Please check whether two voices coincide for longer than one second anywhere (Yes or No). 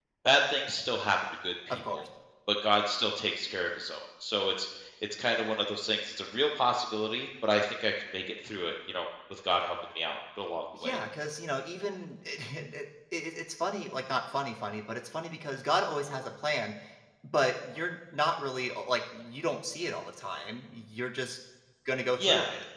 No